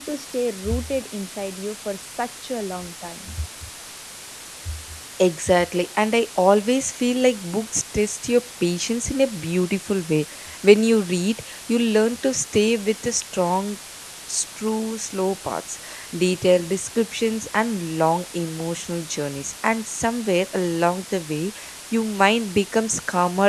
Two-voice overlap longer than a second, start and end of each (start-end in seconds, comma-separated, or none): none